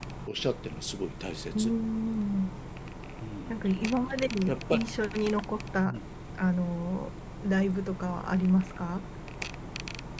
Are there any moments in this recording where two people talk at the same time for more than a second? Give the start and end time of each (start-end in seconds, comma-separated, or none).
none